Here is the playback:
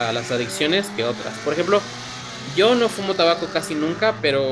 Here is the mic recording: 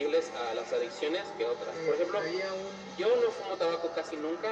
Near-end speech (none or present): present